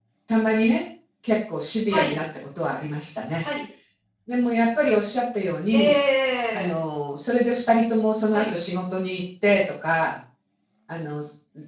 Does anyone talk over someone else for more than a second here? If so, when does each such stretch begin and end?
none

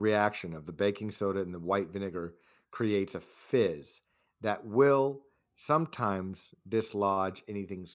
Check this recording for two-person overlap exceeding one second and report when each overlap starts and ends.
none

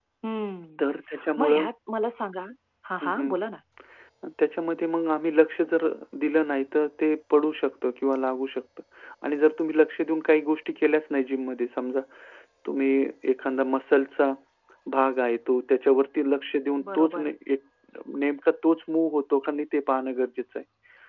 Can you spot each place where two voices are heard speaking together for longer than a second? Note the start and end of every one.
none

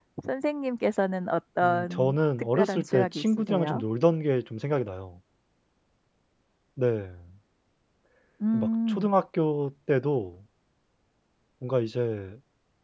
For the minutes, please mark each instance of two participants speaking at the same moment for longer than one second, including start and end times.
1.6-3.8

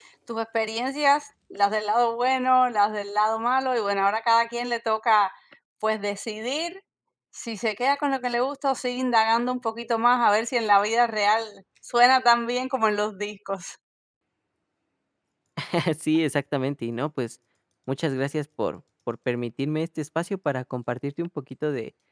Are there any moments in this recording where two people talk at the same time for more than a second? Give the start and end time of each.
none

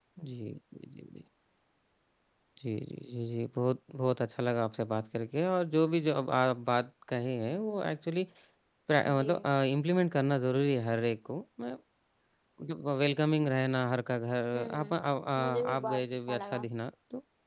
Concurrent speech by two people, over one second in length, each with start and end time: 15.4-16.6

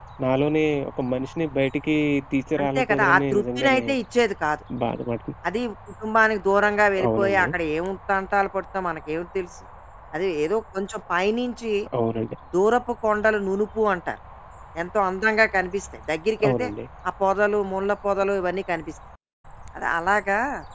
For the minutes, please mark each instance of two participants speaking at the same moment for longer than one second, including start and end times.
2.6-3.8

